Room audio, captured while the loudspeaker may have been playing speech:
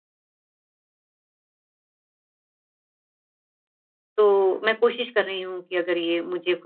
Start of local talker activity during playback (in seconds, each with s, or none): 4.2 s